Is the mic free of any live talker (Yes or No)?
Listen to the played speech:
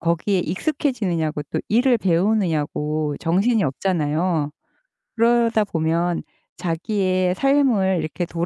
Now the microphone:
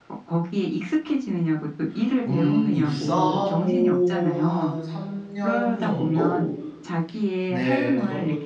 No